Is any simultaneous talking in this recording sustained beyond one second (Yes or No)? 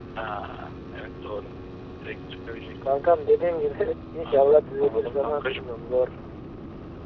Yes